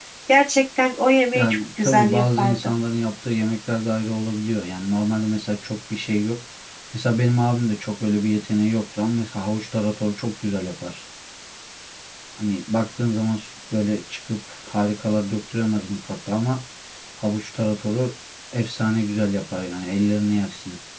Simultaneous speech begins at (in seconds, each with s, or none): 1.3 s